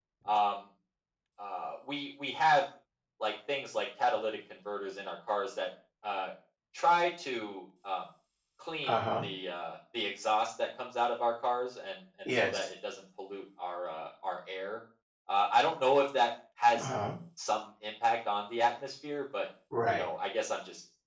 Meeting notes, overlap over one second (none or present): none